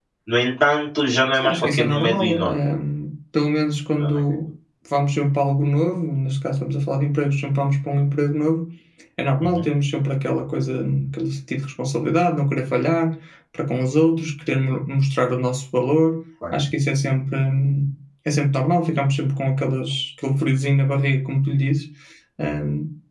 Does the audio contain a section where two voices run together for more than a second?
Yes, from 1.3 s

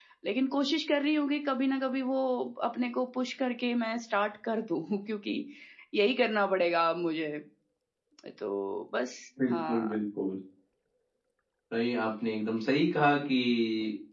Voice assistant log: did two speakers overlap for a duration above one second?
No

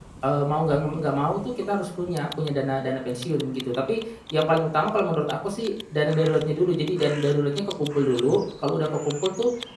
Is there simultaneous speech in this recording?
No

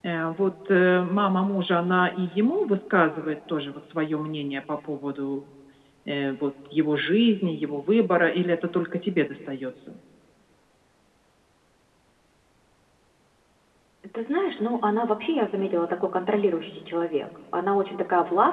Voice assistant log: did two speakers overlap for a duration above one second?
No

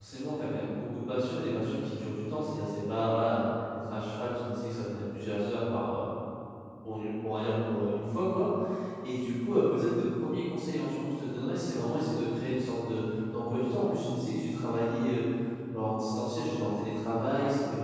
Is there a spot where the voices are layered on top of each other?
No

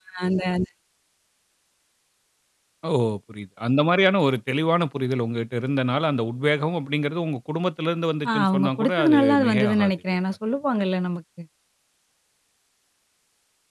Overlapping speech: Yes, from 8.2 s

